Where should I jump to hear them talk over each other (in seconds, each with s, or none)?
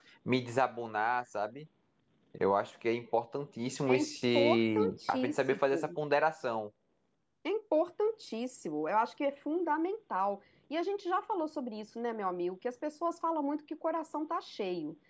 3.9 s